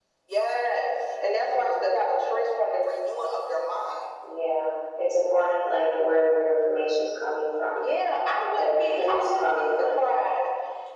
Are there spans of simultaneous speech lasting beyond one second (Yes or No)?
Yes